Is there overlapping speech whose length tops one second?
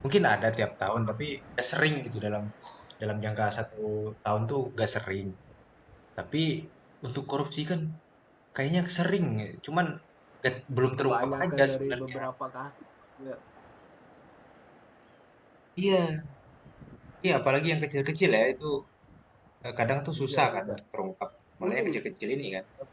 Yes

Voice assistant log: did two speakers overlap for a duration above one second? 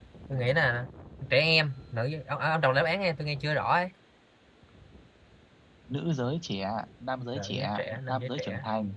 Yes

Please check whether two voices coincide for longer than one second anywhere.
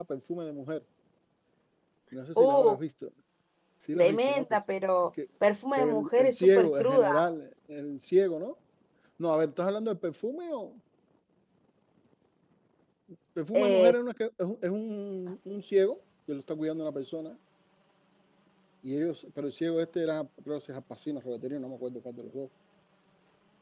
Yes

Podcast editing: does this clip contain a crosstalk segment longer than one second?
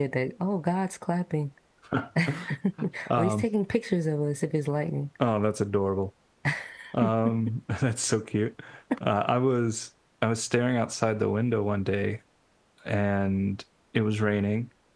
No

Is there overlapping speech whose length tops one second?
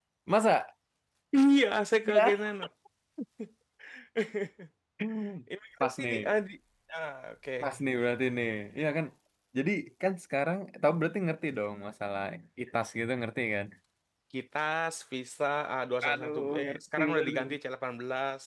Yes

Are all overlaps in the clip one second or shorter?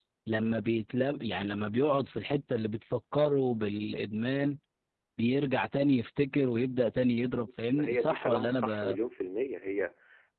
No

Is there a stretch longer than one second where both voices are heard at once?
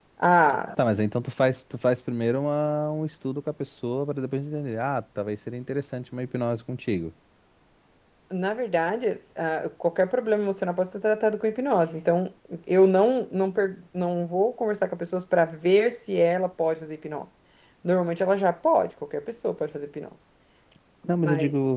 No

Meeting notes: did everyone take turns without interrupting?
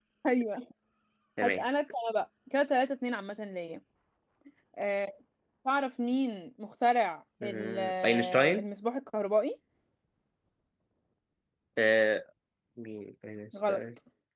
No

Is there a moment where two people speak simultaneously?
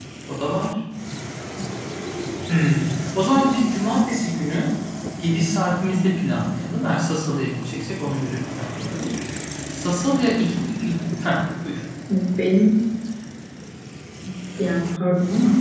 No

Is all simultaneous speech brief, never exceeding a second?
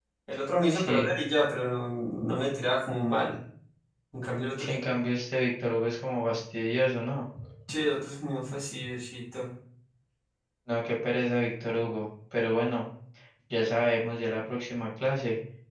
Yes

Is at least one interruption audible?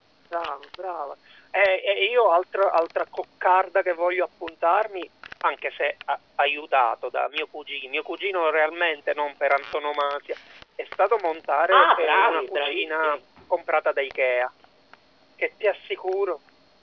Yes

